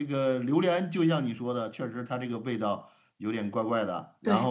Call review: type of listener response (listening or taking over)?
taking over